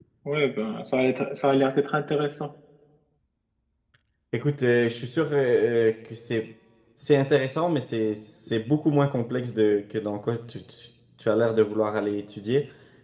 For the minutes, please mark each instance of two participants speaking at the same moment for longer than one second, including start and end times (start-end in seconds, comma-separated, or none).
none